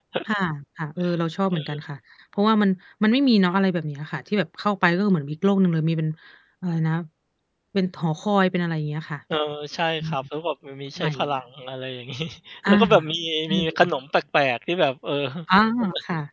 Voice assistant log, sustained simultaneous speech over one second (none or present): none